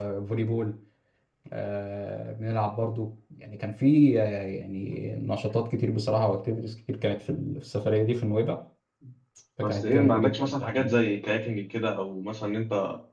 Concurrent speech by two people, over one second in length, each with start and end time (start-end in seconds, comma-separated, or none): 9.6-11.0